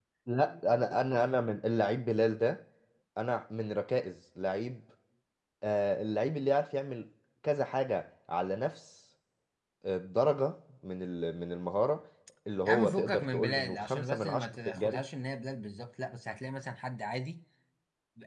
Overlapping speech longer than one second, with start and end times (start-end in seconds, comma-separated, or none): 12.7-15.0